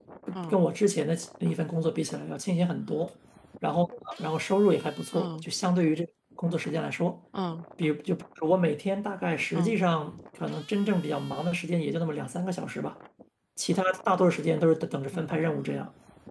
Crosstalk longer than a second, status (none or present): none